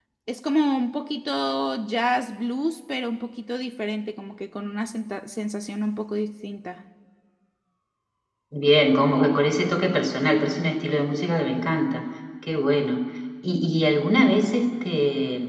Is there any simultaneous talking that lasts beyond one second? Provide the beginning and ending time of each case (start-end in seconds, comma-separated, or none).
none